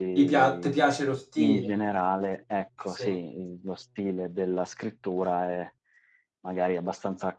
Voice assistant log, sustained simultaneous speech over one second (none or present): none